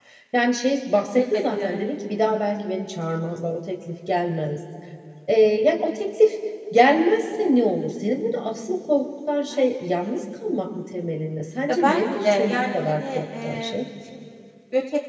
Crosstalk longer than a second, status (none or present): present